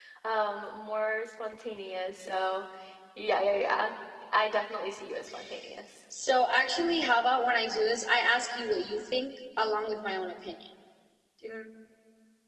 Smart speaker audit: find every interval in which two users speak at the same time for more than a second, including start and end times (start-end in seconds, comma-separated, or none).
none